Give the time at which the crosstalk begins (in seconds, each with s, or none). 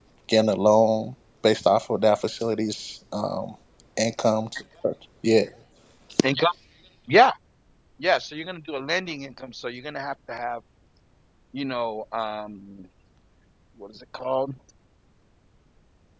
none